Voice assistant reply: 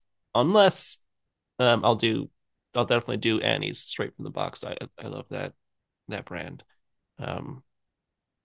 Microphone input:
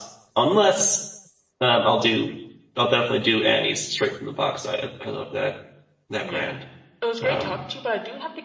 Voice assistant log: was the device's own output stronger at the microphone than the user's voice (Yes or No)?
Yes